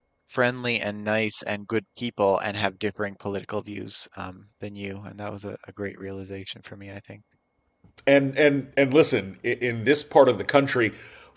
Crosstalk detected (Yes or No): No